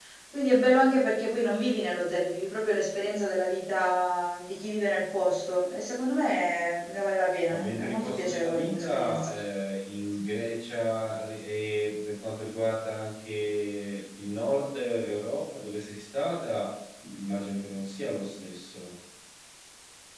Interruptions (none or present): present